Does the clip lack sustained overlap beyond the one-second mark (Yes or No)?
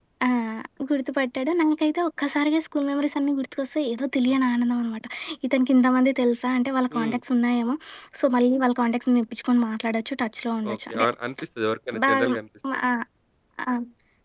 Yes